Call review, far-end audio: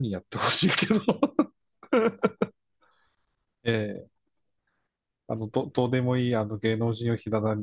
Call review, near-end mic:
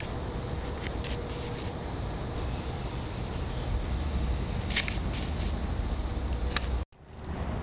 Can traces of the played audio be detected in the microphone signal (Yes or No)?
No